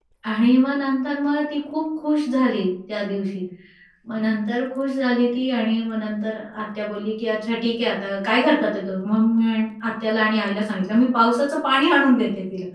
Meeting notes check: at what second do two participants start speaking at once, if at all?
none

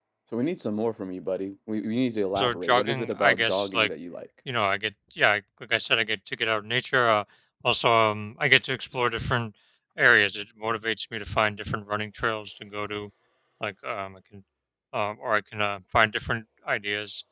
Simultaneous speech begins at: 2 s

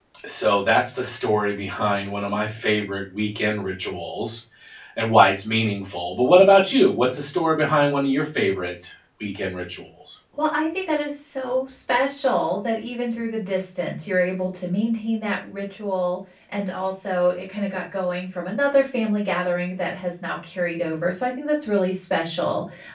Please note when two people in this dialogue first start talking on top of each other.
none

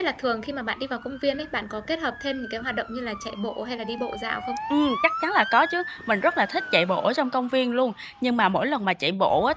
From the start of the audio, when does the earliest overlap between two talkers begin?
none

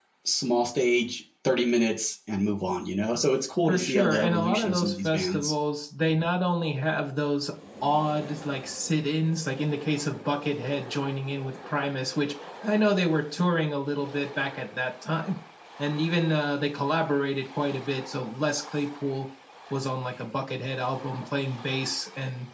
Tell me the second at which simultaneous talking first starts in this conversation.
4 s

